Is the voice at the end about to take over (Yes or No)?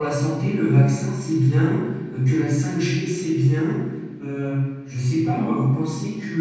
No